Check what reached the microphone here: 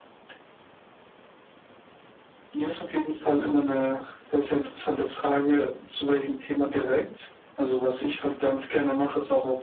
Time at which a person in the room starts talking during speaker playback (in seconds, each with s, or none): none